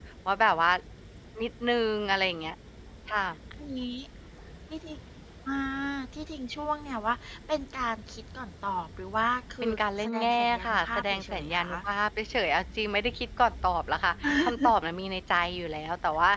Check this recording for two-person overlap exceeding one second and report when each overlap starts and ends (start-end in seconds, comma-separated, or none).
9.6-11.7